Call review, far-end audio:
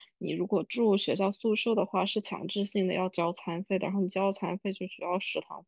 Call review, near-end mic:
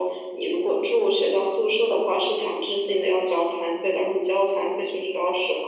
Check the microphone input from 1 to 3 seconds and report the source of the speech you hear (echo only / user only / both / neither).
echo only